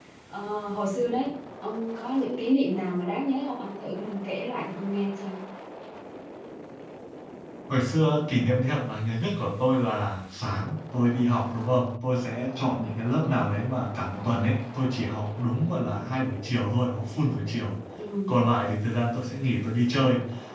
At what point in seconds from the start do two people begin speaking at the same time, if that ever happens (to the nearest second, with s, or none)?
none